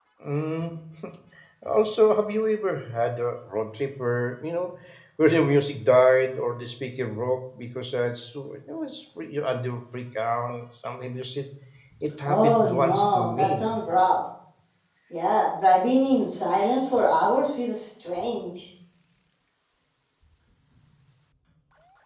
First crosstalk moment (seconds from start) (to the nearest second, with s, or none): 12 s